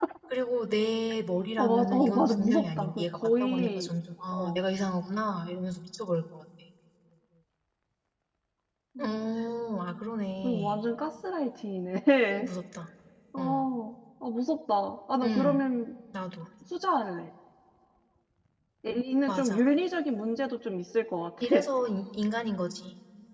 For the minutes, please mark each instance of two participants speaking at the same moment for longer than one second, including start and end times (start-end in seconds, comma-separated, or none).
1.6-3.9